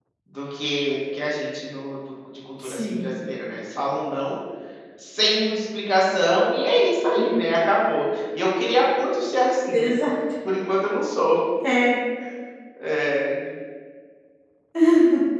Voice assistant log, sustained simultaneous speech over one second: none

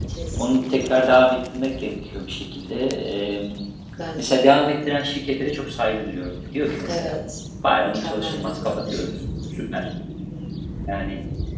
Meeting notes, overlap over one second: present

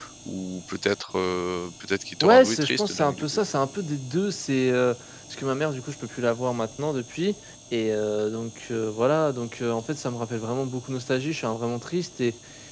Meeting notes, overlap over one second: present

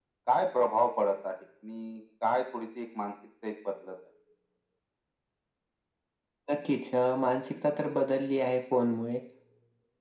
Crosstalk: none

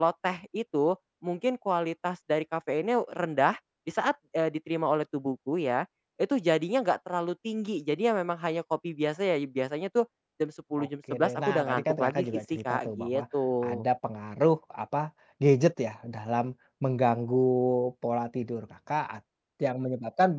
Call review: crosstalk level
present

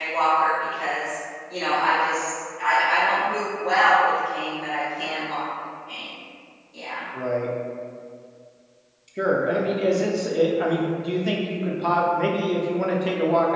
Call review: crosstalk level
none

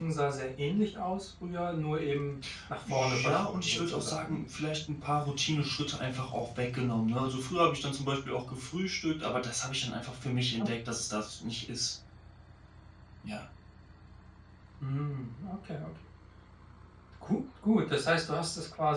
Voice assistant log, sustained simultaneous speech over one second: present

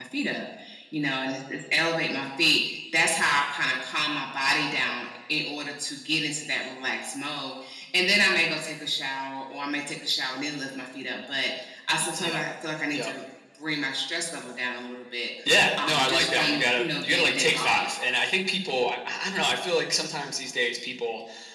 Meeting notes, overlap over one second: present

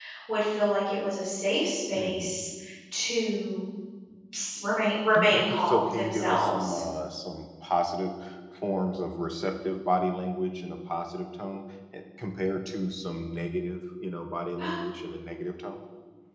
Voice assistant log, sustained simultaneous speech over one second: present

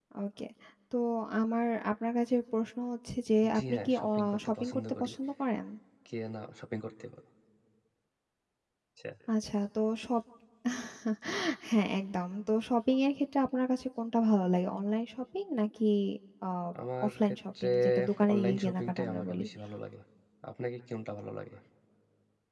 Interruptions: present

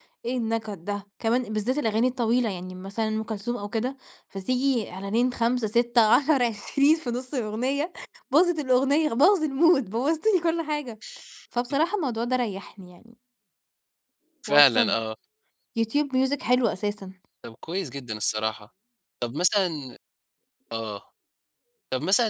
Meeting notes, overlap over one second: none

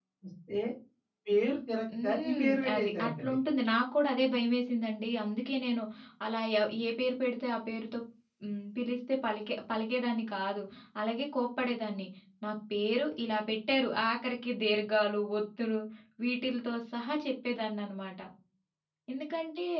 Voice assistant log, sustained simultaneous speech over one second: present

